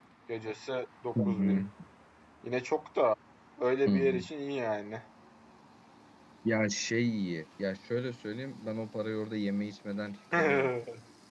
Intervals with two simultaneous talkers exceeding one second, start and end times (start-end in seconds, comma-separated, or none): none